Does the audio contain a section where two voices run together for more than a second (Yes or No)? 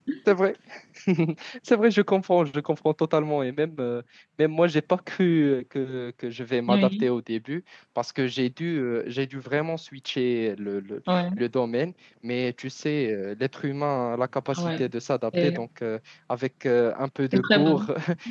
No